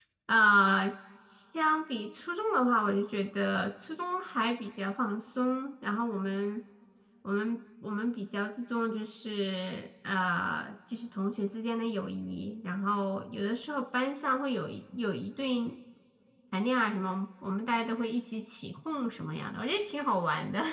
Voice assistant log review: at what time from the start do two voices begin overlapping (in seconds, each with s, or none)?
none